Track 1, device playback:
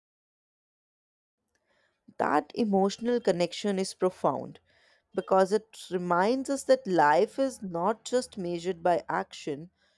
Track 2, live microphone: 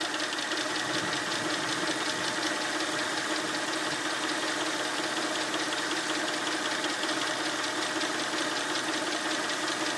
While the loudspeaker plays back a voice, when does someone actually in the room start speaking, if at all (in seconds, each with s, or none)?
none